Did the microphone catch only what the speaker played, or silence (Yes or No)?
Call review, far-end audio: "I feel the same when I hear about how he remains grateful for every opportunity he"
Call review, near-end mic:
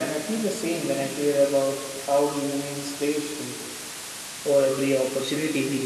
Yes